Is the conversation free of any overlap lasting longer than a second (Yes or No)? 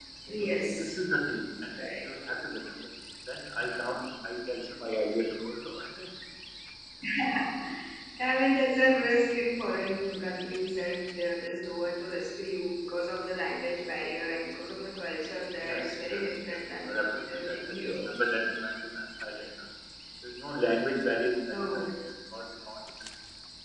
No